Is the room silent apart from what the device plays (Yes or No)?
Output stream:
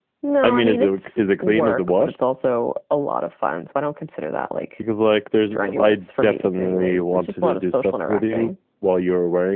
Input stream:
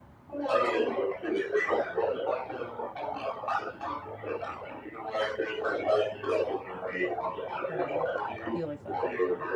No